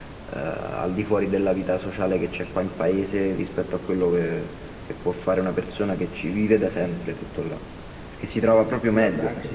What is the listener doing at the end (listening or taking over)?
taking over